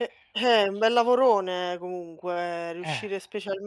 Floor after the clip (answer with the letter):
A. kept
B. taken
A